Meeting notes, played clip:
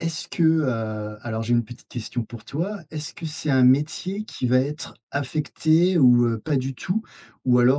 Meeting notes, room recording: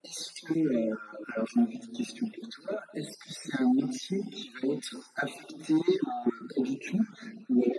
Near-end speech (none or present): none